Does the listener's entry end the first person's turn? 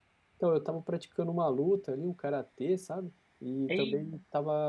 No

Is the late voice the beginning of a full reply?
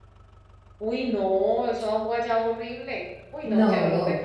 No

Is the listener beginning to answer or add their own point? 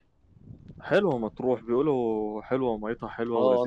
Yes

